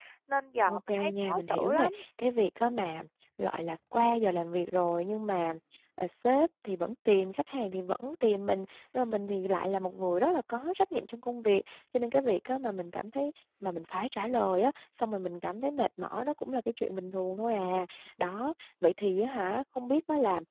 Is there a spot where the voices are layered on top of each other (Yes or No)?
Yes